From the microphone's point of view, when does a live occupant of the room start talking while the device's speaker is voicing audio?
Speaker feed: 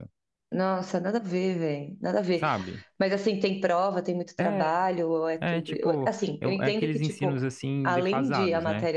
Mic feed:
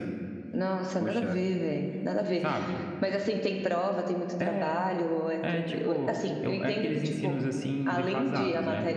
1 s

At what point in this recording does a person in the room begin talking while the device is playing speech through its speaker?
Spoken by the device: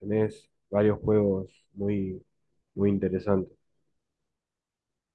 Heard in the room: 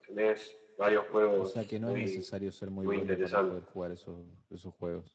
1 s

